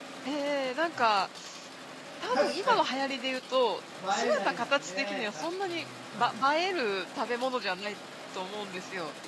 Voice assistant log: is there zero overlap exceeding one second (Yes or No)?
No